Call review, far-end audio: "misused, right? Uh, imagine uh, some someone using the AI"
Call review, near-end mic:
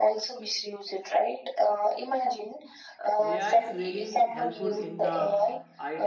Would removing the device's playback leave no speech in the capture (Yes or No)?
No